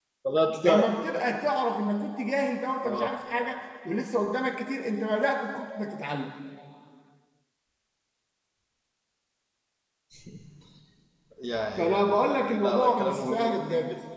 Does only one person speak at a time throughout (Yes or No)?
No